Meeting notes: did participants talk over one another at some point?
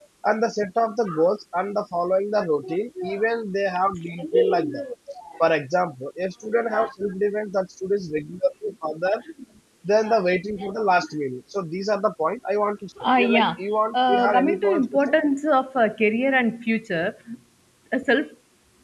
Yes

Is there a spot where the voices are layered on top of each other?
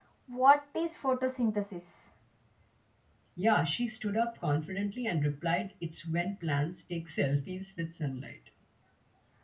No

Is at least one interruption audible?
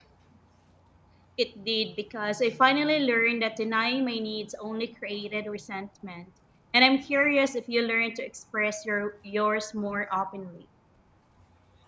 No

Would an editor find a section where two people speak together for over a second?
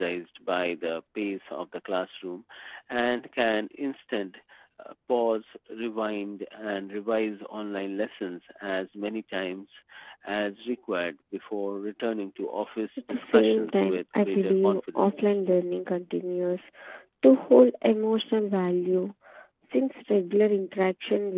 Yes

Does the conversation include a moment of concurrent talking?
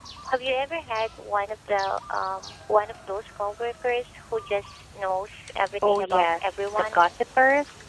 Yes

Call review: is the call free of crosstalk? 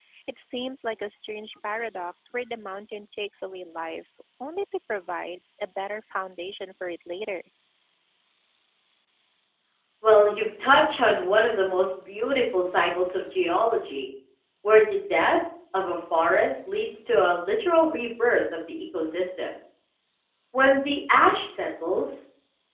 Yes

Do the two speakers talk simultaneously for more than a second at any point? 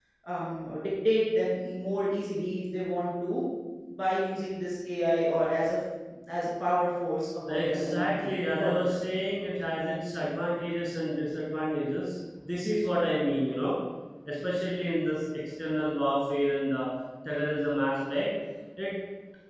Yes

